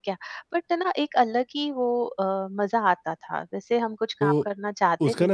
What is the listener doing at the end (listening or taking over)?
taking over